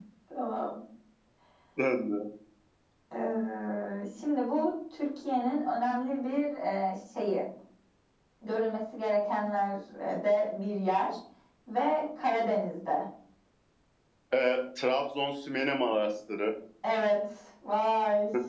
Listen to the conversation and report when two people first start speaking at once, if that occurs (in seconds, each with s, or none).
none